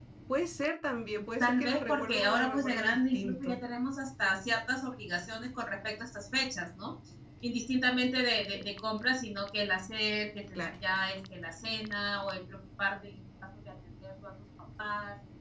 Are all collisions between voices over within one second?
No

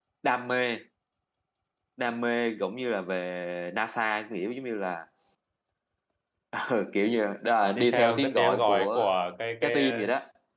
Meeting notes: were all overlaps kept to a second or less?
No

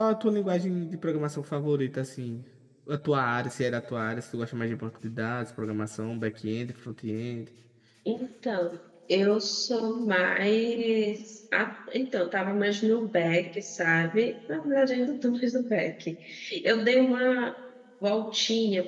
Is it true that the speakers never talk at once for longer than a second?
Yes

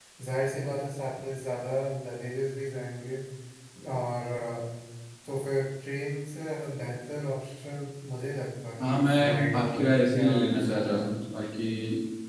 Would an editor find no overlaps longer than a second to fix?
No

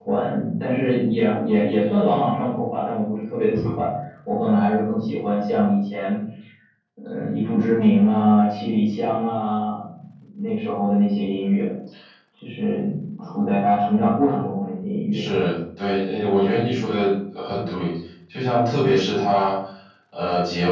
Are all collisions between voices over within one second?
Yes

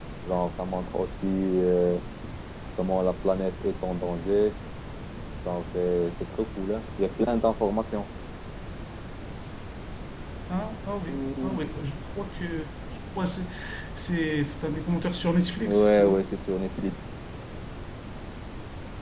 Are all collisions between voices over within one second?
Yes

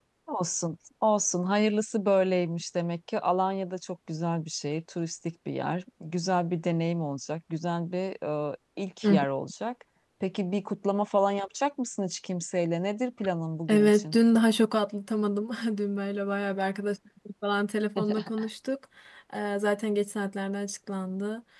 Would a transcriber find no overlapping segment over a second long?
Yes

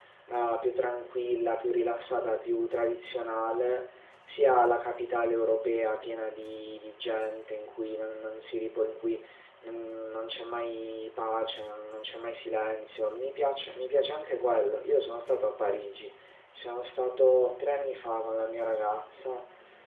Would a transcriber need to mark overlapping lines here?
No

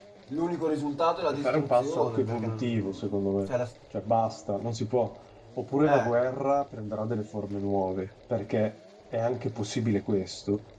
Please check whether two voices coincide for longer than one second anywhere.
Yes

